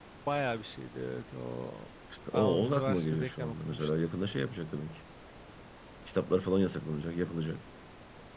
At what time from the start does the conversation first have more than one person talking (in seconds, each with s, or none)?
2.3 s